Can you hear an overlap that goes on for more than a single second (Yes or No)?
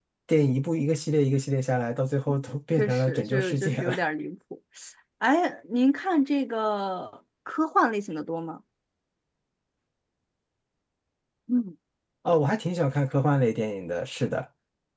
Yes